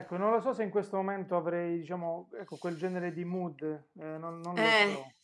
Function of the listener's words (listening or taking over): taking over